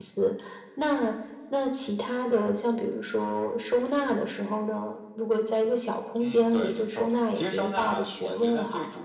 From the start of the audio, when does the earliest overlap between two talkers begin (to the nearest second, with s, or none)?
6 s